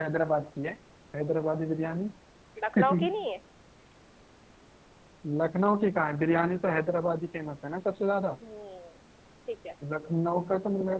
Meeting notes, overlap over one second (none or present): none